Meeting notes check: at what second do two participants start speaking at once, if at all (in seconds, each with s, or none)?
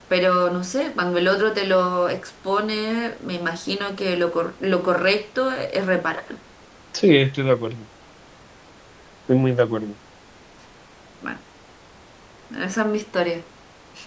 none